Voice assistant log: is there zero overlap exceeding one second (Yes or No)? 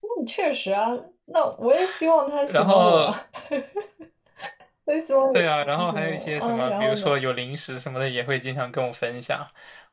No